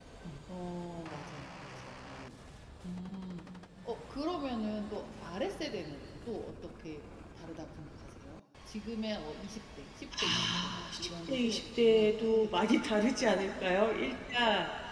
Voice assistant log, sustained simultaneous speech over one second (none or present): present